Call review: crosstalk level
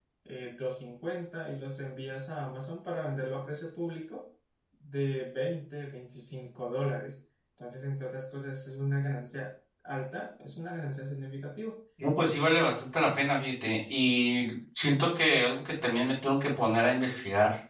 none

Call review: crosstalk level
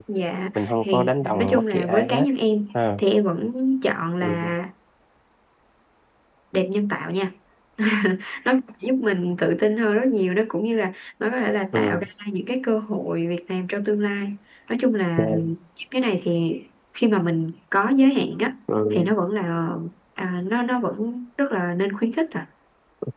present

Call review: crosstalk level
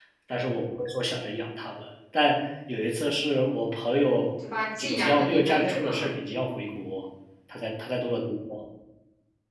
present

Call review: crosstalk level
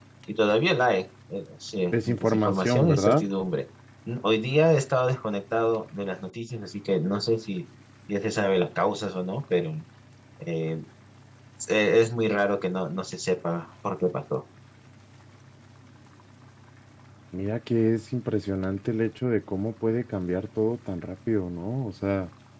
present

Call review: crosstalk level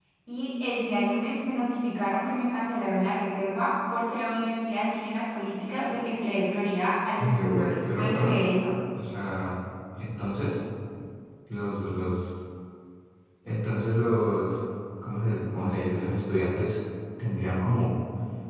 present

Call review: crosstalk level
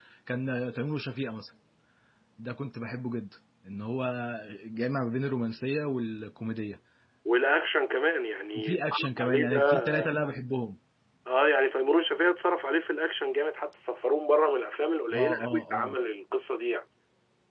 present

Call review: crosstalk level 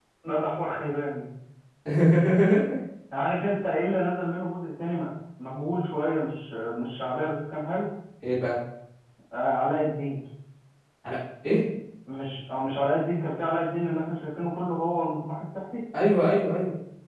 none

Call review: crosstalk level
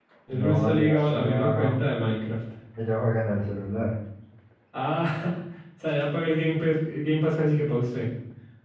present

